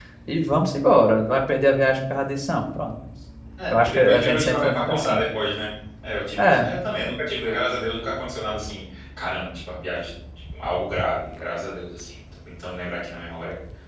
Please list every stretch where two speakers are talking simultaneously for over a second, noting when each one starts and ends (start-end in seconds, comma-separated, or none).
3.7-5.2